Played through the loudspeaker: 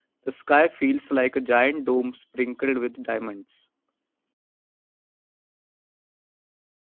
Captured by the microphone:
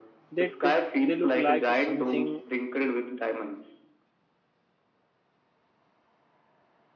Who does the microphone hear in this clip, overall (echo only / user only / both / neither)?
both